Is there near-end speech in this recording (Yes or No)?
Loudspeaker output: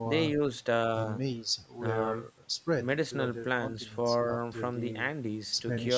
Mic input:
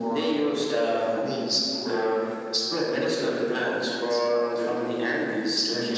No